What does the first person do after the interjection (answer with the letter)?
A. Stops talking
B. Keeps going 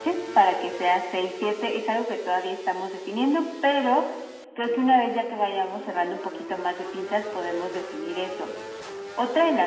B